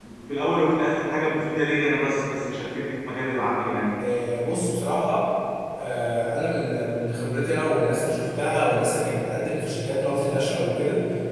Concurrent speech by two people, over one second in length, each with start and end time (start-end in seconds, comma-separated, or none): none